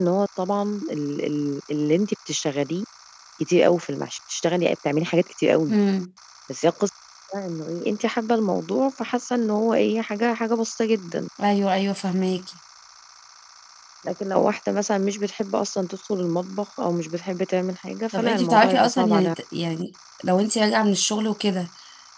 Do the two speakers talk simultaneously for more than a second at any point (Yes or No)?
Yes